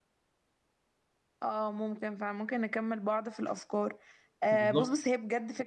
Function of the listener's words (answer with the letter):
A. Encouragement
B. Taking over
A